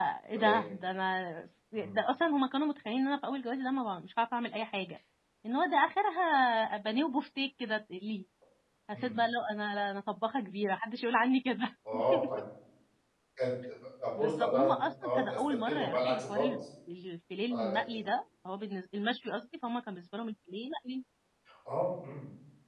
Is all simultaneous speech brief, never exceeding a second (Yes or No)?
No